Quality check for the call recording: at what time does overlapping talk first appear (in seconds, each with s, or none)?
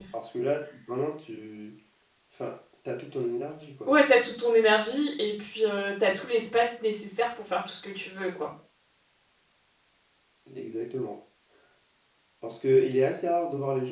none